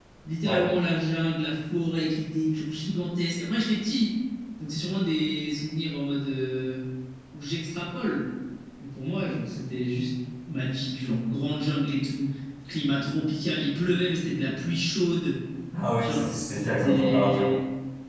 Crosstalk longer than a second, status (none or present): present